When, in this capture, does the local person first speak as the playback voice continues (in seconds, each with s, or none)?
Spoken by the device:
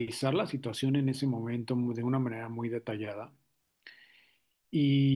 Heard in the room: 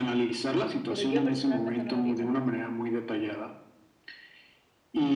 0.8 s